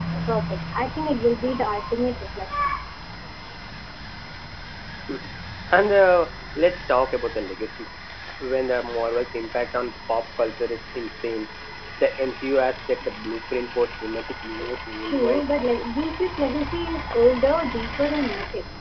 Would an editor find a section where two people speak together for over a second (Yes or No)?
No